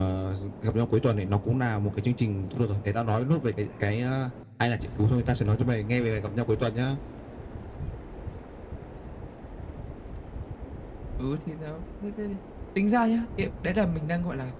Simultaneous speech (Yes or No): No